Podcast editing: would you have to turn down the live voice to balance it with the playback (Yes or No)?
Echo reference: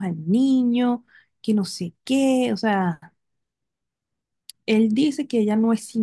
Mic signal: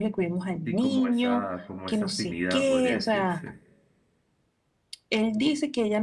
No